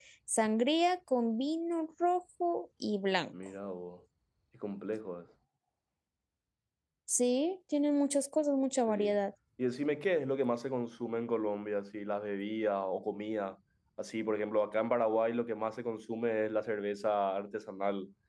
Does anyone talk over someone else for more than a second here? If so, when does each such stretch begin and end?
none

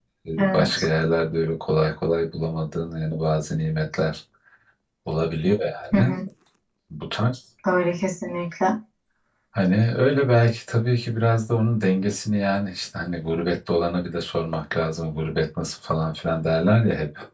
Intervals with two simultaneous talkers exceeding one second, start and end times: none

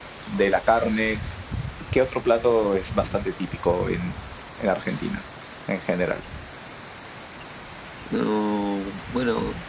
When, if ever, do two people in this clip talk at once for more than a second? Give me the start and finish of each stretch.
none

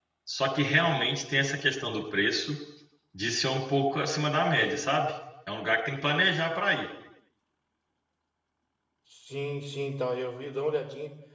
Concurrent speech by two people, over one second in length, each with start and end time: none

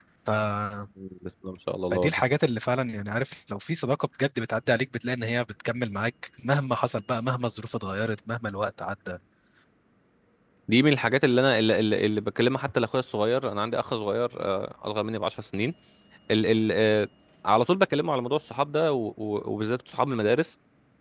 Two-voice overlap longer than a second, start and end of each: none

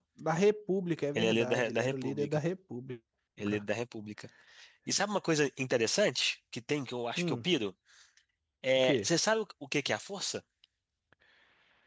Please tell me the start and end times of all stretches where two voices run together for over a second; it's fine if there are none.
1.1-2.4

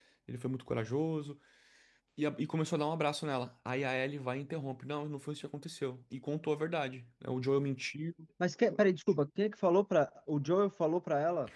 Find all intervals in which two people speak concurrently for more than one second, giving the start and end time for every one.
none

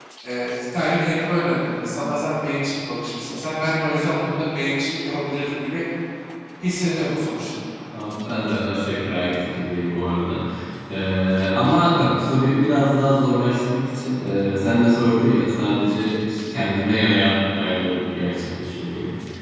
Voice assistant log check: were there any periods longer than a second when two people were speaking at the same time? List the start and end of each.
none

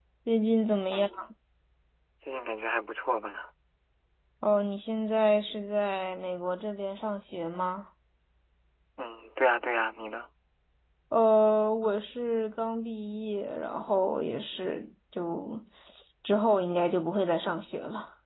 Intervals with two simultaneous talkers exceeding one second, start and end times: none

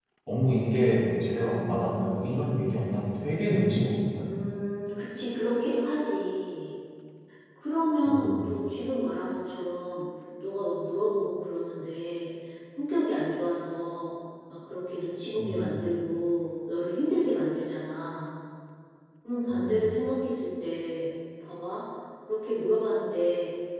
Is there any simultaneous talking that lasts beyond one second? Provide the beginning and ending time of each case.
none

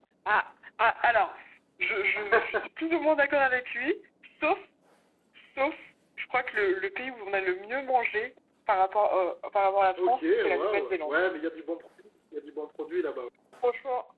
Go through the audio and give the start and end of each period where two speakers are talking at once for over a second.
10.0-11.2

